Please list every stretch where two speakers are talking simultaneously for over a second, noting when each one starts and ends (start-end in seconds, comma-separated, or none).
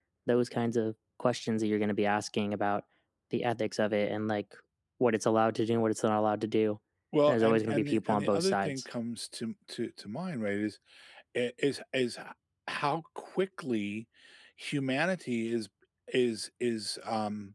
7.3-8.8